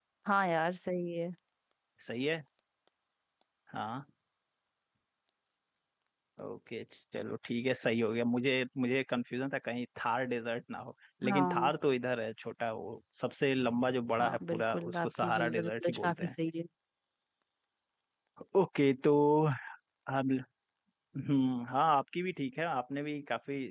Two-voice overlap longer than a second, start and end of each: 14.2-16.3

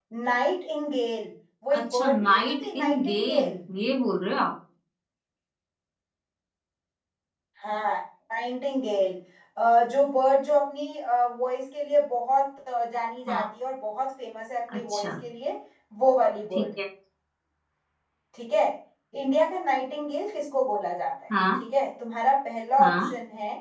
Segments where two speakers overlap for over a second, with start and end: 1.8-3.6

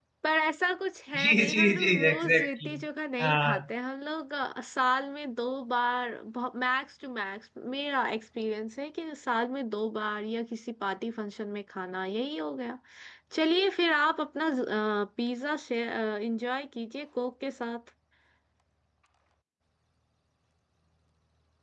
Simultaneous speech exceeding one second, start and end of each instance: 1.2-2.7

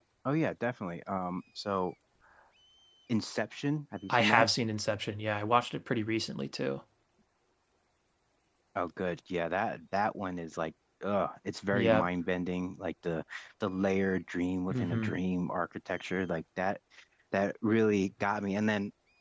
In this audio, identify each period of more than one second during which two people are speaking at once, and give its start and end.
none

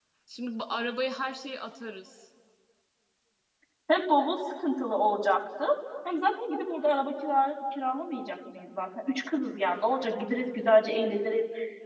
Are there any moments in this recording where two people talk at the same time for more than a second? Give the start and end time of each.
none

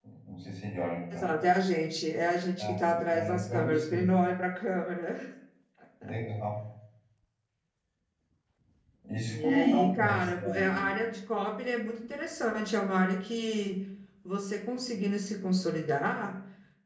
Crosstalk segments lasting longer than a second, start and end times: 2.6-4.1, 9.3-10.9

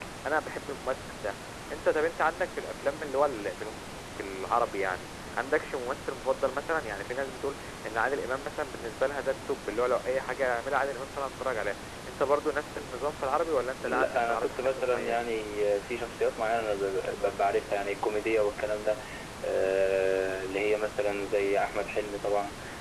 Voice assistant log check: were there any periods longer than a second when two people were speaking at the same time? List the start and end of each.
13.8-15.2

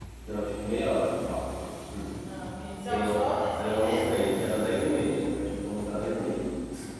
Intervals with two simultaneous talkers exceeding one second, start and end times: 2.9-4.1

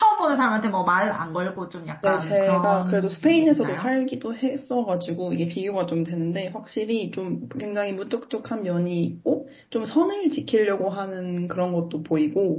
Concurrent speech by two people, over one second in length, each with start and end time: 2.0-3.9

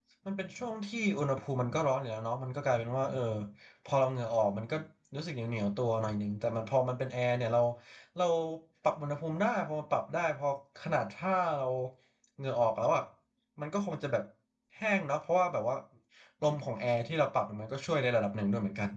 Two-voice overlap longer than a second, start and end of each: none

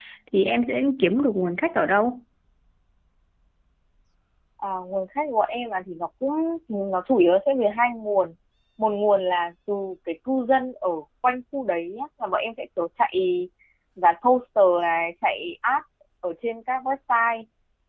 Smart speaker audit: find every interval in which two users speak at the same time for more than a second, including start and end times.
none

